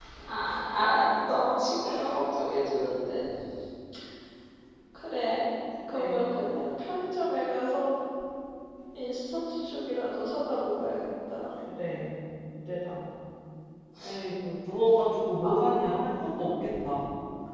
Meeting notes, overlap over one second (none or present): none